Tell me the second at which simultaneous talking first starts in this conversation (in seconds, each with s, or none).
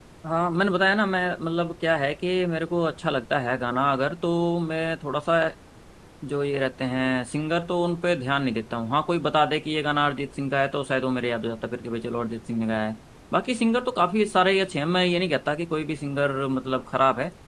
none